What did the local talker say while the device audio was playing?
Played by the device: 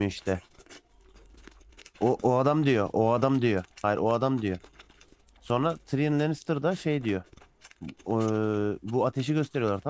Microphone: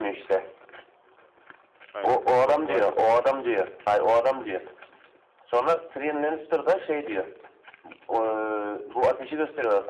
Aynen. Oh, Willis.

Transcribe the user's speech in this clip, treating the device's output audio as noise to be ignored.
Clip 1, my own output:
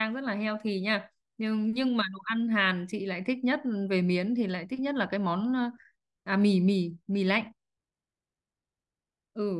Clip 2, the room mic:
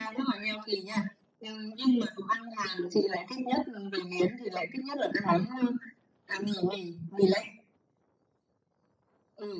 none

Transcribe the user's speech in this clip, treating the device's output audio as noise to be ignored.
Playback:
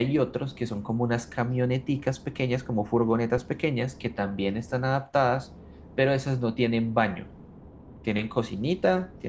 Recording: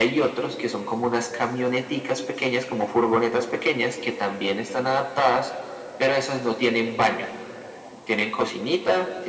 none

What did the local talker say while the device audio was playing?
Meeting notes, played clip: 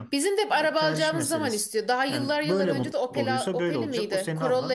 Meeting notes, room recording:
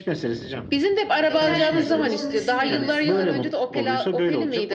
Ya kendi ne durumda onu düşünmüyor mesela.

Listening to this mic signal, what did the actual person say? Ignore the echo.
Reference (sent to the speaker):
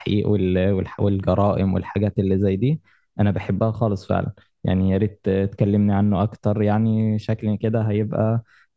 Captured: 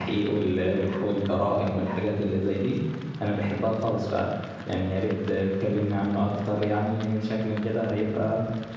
none

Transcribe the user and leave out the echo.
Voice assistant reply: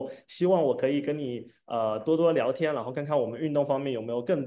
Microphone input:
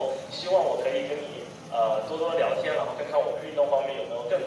none

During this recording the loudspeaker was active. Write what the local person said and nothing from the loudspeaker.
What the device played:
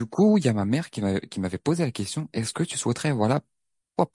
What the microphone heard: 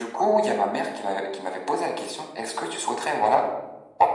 none

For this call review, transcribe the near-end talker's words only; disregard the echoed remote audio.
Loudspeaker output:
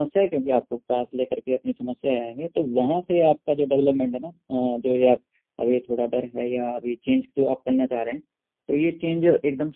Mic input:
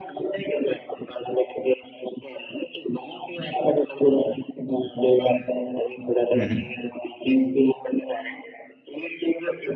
हम्म

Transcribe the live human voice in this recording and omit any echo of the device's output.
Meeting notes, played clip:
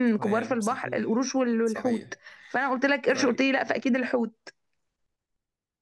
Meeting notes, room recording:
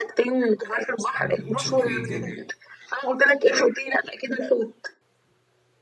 متشكرين جدا

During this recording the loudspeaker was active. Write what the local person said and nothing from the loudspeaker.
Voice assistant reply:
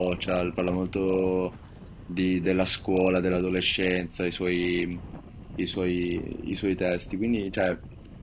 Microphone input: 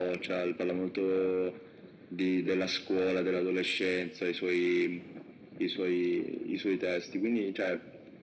none

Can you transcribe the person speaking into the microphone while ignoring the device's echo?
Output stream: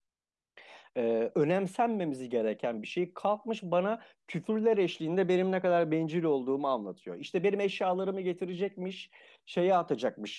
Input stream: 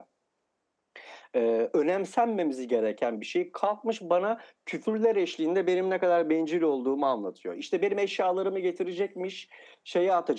none

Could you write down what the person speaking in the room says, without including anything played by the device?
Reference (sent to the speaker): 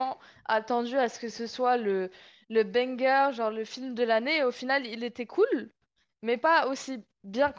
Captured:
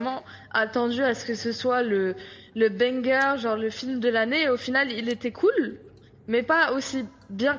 none

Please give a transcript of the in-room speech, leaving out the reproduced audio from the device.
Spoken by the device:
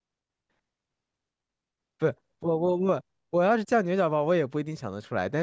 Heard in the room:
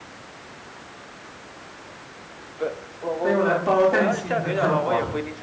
它用来包蛋清和蛋黄，

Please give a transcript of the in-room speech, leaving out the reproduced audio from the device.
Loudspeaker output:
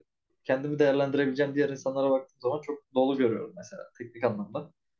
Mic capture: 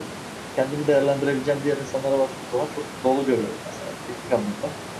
none

